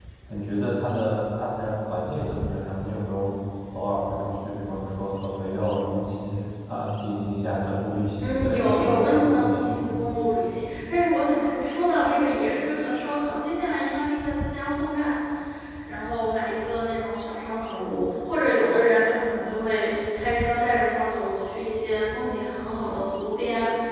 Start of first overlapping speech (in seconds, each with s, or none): 8.2 s